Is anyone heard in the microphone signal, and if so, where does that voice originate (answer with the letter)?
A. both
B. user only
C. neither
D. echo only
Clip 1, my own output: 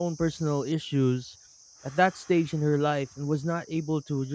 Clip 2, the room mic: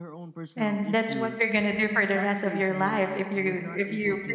A